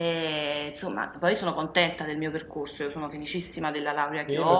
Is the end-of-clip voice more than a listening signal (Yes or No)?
Yes